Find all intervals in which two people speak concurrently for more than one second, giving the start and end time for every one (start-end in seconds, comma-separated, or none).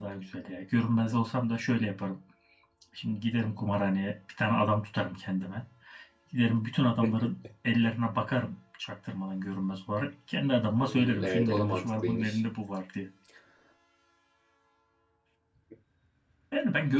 10.8-12.4